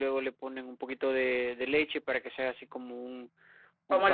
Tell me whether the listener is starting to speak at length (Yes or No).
Yes